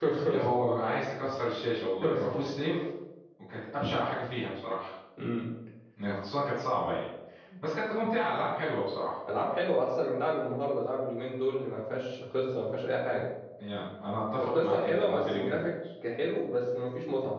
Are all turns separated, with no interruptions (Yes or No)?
No